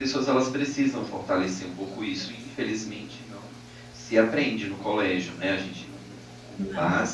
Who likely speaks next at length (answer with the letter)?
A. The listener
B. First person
B